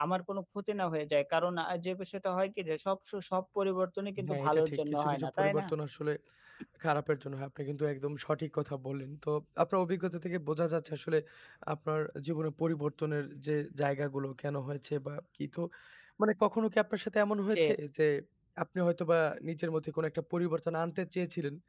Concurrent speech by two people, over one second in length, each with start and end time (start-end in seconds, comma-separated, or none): 4.2-5.7